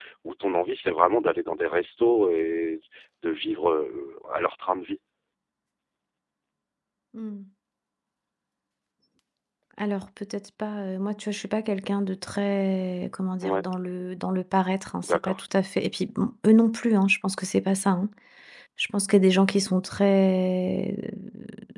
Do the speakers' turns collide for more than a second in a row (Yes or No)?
No